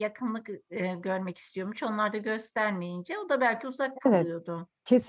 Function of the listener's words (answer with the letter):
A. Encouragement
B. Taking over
B